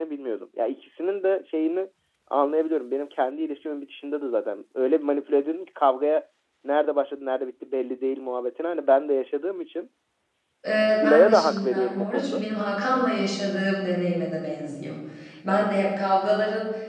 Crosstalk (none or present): present